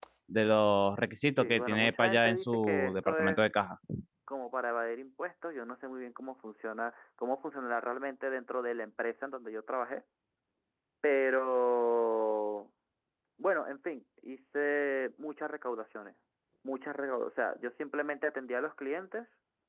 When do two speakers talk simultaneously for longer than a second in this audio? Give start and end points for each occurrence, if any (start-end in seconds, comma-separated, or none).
1.4-3.4